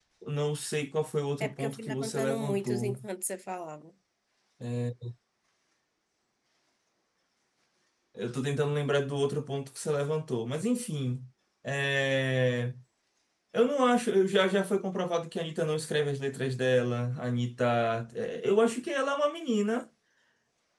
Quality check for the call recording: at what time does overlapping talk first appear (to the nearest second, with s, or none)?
1 s